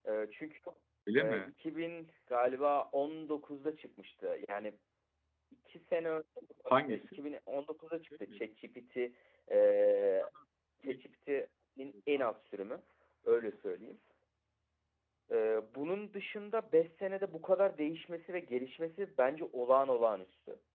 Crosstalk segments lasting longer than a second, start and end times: none

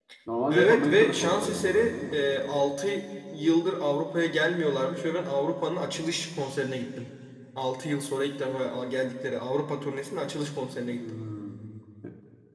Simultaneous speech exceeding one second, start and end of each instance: 0.5-2.1

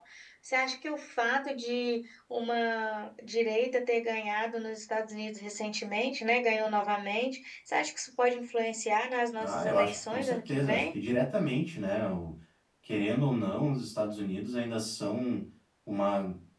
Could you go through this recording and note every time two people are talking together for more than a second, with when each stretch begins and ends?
9.4-10.9

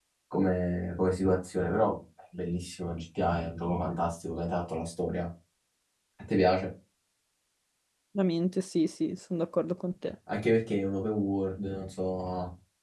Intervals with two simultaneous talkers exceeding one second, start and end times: none

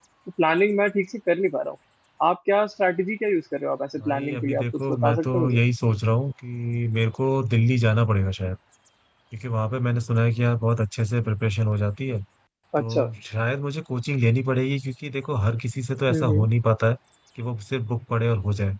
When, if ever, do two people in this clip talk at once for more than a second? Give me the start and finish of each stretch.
4.0-5.6

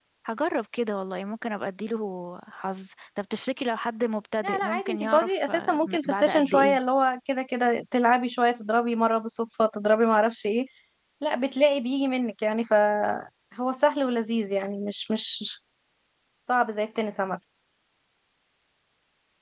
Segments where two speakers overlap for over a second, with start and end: 4.4-6.8

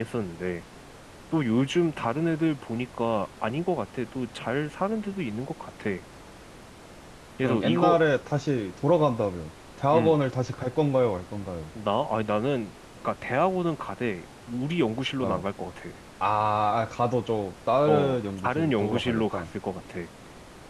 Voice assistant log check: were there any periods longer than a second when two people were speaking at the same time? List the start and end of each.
17.9-19.4

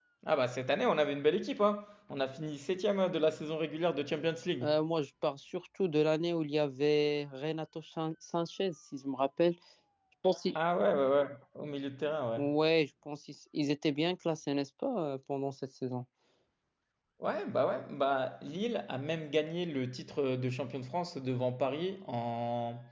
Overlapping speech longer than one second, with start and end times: none

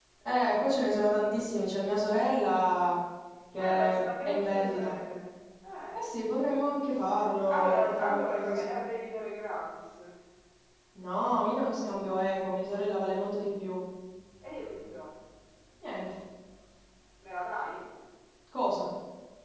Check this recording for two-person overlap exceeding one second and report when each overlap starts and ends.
3.6-4.9, 7.5-8.8

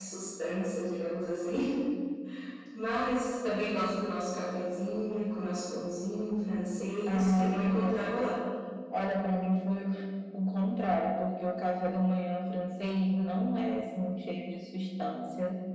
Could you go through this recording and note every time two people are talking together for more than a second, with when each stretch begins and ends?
7.1-8.3

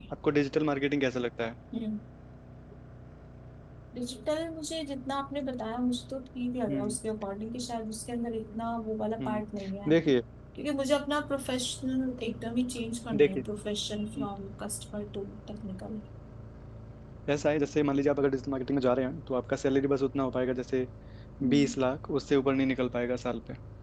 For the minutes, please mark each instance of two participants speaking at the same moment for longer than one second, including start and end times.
none

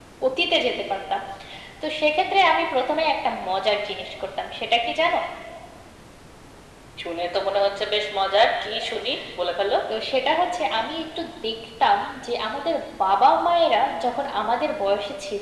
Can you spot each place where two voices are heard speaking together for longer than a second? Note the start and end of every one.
none

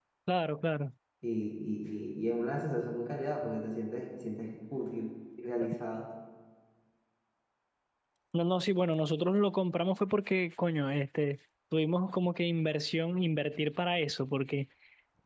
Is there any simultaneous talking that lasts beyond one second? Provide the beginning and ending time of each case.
none

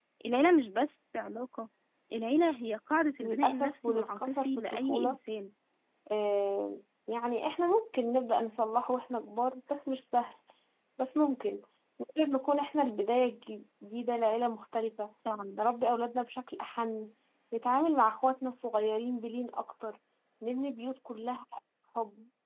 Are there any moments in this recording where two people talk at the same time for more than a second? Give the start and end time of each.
3.2-5.2

